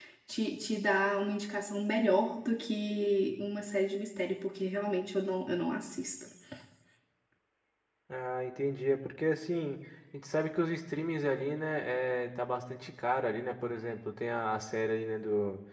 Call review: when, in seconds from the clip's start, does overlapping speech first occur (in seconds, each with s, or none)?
none